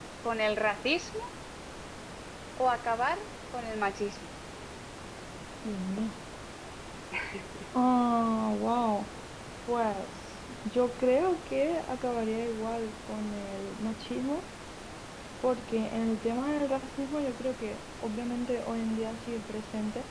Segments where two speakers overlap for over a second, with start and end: none

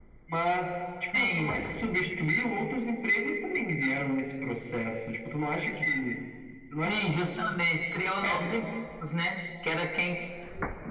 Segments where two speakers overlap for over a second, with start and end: none

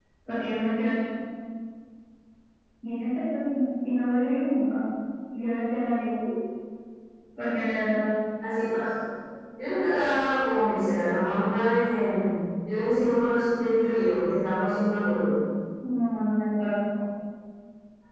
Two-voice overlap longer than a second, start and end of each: none

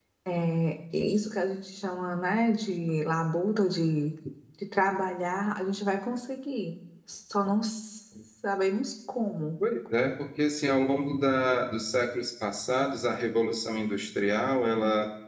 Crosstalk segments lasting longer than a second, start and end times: none

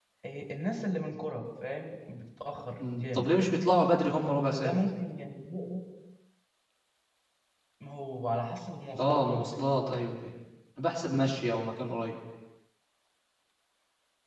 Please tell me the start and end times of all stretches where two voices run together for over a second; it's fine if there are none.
none

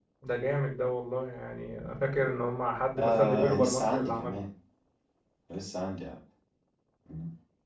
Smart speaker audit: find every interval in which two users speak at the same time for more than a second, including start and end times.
3.0-4.4

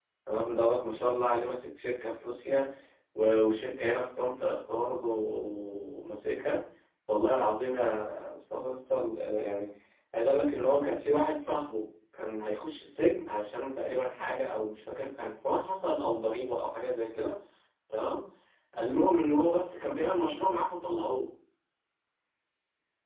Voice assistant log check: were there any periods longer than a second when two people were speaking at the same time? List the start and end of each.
none

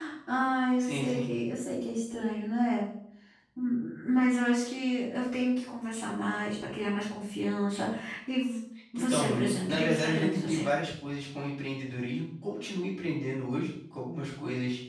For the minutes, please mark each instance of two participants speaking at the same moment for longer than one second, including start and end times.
9.1-10.7

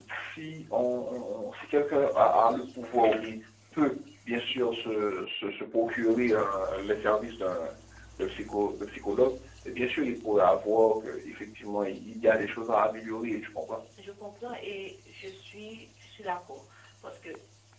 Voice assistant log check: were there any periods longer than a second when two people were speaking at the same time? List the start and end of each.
none

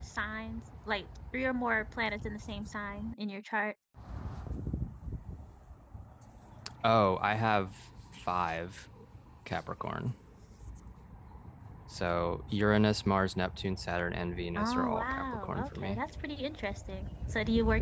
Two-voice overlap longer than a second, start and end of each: 14.6-16.0

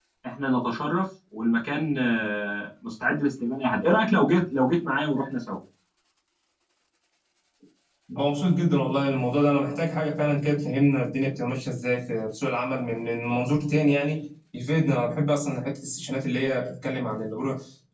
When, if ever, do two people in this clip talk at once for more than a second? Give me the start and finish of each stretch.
none

